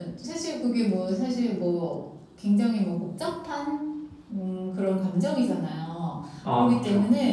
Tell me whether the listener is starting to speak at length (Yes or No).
No